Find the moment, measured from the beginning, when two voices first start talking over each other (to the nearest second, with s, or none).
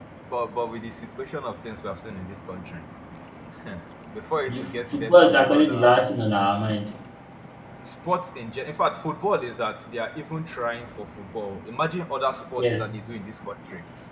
4 s